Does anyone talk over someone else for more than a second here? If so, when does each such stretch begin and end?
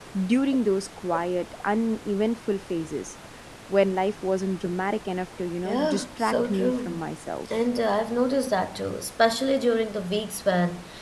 5.6-7.0

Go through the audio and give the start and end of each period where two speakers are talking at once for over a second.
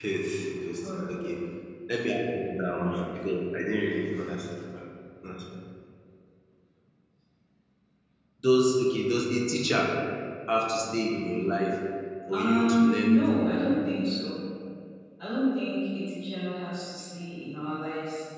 12.3-13.8

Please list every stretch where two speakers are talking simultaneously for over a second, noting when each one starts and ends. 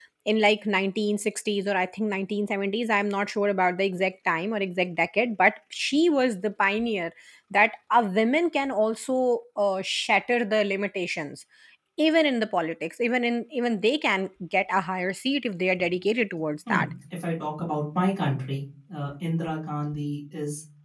none

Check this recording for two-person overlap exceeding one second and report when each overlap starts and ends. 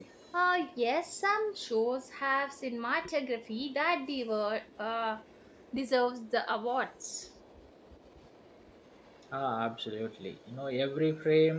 none

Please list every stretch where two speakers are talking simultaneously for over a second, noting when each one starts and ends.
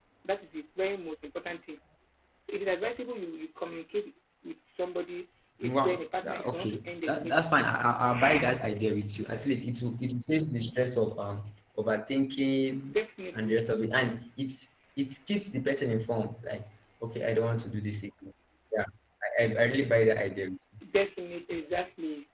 5.6-7.6

